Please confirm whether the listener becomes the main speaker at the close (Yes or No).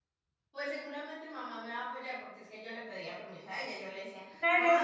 Yes